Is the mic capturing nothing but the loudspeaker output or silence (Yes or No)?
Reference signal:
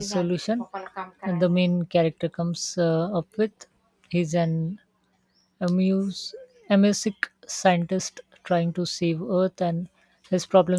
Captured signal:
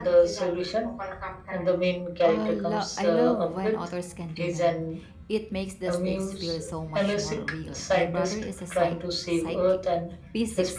No